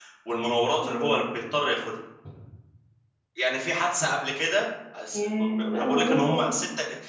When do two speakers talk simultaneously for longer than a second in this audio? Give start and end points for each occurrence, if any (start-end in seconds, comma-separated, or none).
5.1-6.5